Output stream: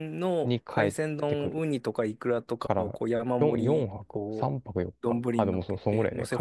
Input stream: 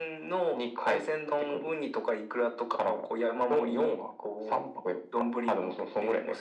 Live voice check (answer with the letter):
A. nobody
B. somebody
A